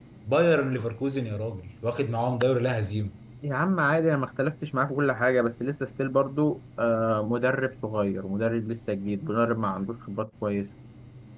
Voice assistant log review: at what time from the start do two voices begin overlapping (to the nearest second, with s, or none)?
none